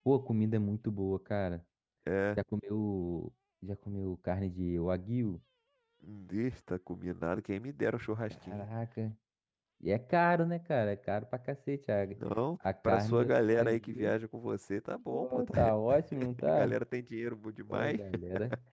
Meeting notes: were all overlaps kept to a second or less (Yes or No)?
No